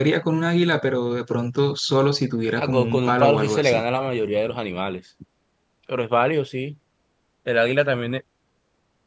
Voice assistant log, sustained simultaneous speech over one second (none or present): present